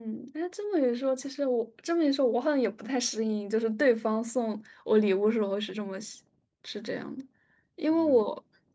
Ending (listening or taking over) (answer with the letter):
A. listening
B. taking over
A